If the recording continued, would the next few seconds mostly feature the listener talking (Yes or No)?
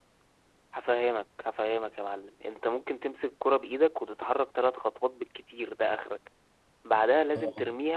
No